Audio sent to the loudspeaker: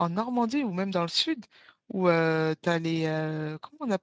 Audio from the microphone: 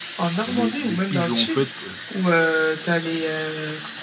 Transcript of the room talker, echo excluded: les, les pigeons. En fait, euh,

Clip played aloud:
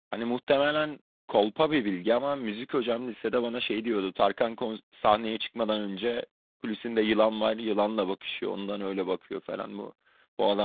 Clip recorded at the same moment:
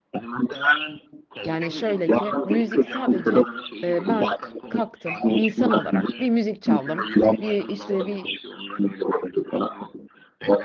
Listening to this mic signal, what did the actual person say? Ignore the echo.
Yani şöyle ki müzik sadece e, ben kalktım bir insan olarak bir müzik çaldım bir işte bir

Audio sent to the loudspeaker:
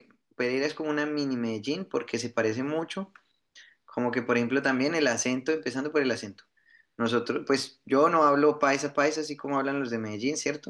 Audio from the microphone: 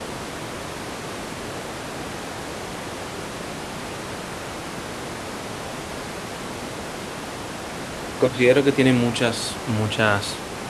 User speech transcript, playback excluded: considero que tiene muchas, muchas

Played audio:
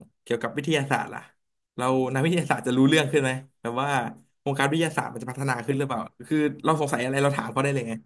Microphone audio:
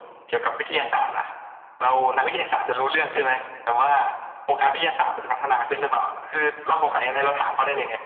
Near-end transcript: none

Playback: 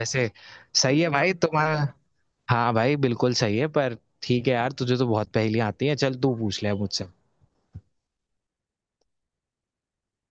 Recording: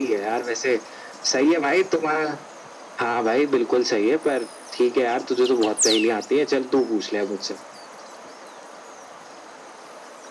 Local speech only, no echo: none

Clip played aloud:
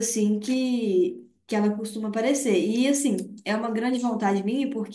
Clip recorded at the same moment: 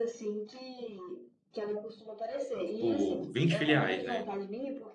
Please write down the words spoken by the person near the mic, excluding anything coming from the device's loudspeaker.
tipo, 20 filiais, né?

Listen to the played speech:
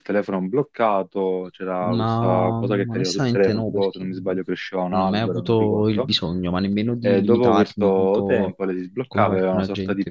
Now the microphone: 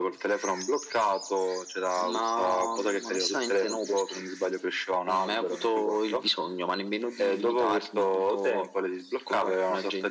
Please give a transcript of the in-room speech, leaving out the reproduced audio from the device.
none

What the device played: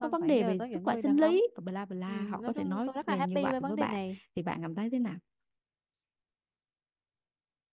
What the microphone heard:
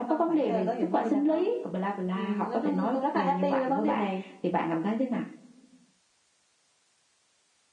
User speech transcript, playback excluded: none

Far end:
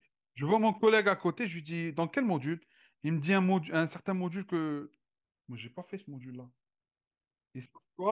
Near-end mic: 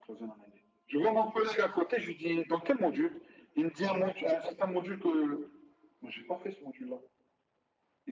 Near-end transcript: none

